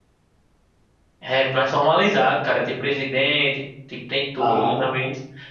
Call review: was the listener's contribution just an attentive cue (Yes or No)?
Yes